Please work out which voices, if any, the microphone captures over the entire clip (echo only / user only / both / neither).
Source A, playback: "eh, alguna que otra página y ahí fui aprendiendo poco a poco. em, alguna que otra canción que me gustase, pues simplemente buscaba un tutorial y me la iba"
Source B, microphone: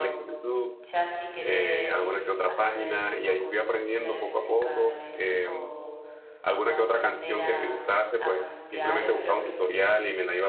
both